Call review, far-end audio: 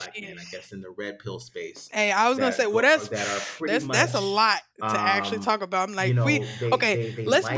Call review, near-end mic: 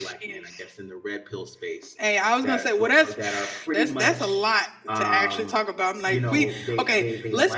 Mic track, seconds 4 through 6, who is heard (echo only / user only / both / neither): echo only